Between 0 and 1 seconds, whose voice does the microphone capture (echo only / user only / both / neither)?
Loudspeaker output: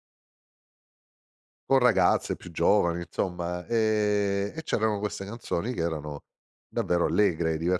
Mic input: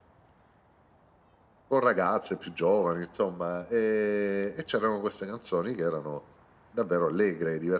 neither